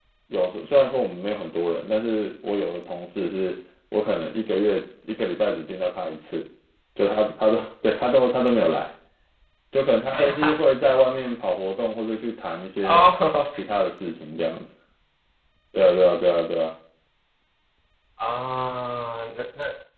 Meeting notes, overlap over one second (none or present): none